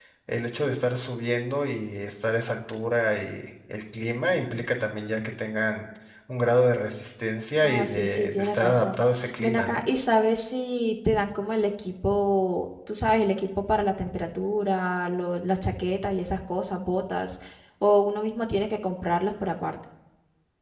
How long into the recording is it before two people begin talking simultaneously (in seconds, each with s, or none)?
7.6 s